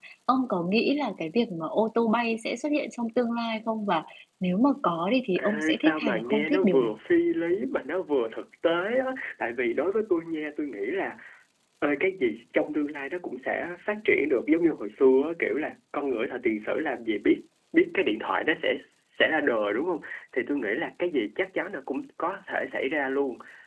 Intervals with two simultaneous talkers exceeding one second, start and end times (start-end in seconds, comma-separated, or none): 5.4-6.9